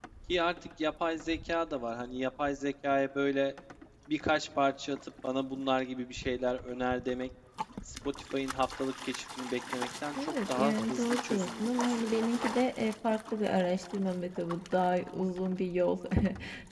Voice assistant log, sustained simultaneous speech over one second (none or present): present